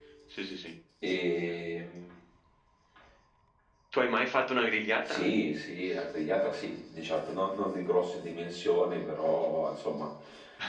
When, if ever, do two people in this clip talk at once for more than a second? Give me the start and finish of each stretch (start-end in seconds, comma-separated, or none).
none